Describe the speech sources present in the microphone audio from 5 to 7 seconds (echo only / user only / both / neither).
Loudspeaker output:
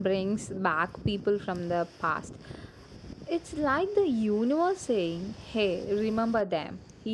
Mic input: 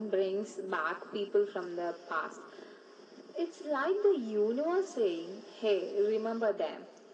echo only